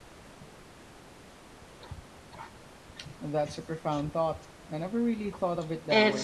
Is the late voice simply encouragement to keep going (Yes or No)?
No